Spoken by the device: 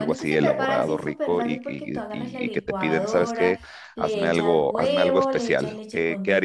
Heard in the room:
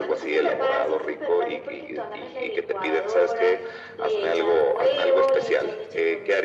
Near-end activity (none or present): none